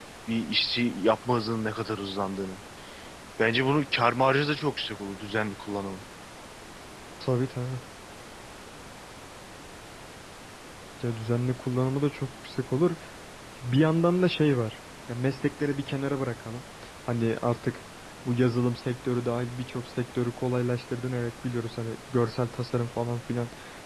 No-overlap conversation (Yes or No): Yes